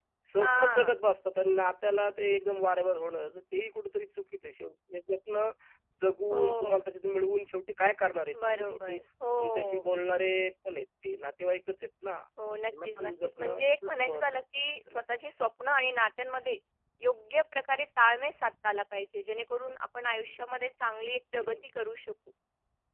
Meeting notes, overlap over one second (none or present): present